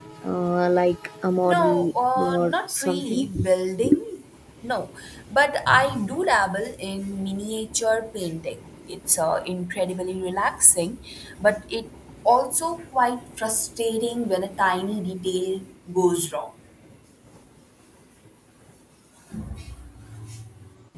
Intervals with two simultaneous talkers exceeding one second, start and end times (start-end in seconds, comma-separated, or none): 1.4-3.3